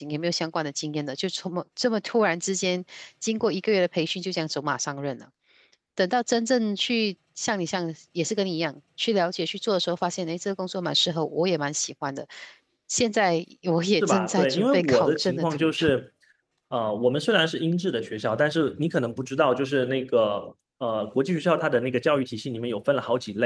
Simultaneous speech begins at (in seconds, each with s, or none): 14.0 s